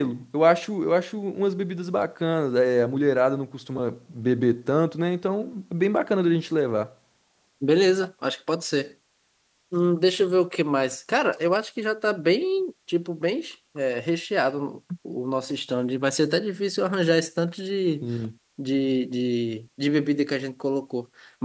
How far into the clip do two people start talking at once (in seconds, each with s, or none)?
none